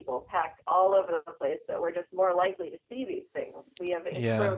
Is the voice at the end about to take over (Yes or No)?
No